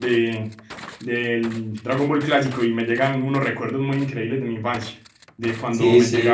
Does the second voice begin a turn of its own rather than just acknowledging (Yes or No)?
No